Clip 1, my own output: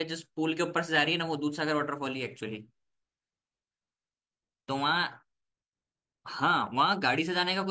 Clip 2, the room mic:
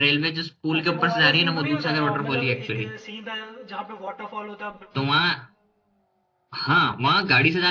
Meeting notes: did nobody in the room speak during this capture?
No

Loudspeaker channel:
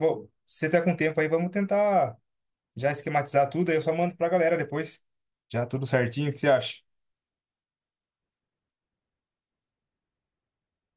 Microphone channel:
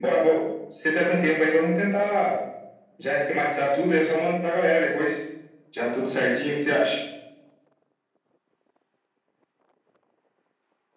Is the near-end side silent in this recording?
Yes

